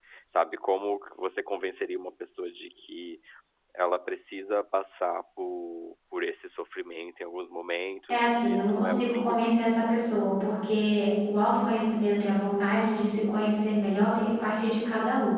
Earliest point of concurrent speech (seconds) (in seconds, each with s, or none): 8.1 s